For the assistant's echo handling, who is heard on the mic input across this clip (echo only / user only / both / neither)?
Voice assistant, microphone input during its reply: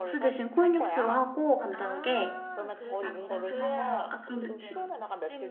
both